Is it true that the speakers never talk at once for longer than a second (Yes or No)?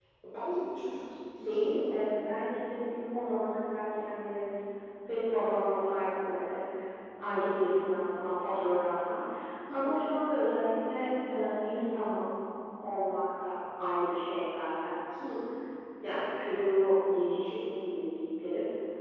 Yes